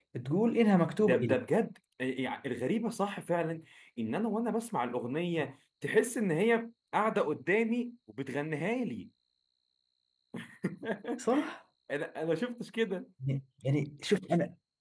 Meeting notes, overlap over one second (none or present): none